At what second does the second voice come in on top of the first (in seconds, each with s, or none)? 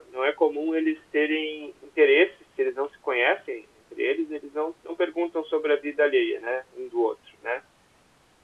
none